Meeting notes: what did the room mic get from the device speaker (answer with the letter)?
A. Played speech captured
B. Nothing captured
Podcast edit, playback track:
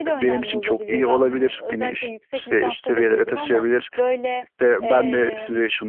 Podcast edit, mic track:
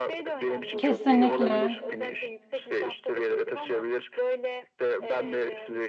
A